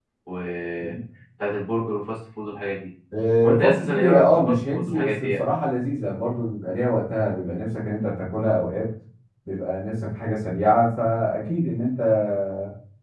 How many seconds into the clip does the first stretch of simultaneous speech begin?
3.4 s

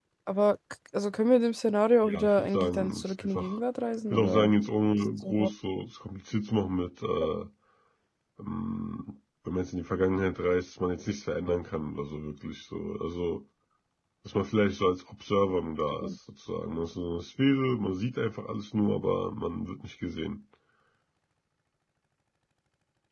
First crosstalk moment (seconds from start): 2.0 s

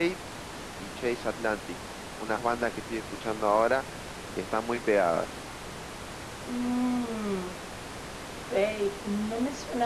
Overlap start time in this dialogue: none

